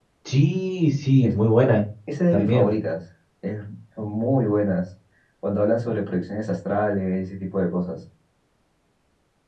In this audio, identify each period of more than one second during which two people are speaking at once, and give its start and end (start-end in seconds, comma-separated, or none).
none